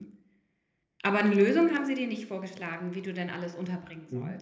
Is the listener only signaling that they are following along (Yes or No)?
No